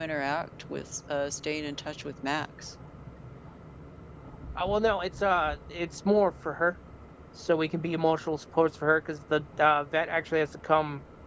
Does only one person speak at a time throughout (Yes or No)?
Yes